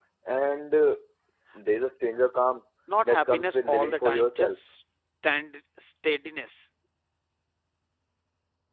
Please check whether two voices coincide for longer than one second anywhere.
Yes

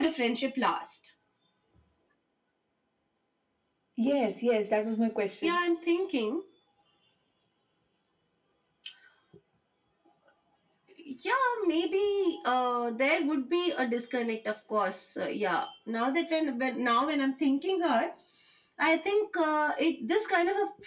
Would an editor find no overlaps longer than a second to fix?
Yes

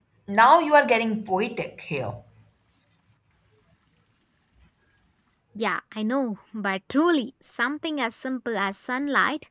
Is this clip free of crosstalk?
Yes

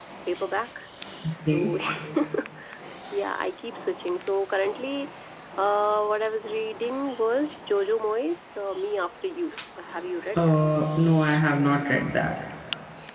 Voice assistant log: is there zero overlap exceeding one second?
Yes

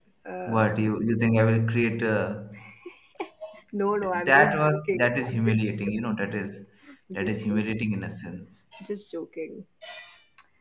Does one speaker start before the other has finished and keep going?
Yes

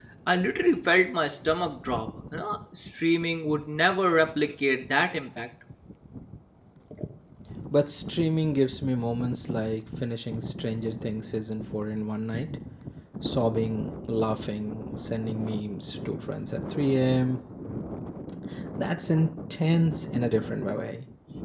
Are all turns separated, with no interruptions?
Yes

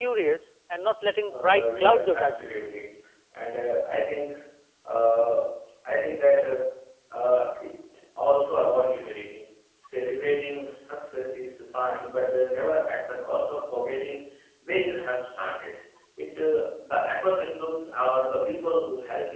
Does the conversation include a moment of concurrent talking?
Yes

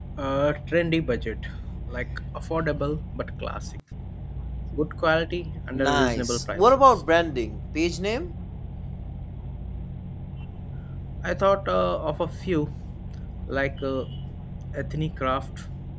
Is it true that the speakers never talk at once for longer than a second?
No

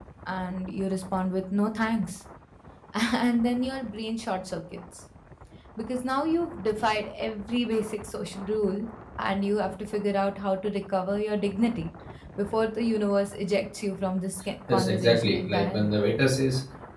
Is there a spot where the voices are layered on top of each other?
Yes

